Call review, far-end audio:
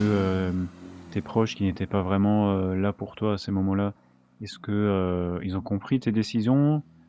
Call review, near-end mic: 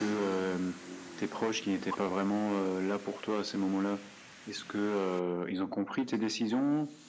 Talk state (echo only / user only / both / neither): echo only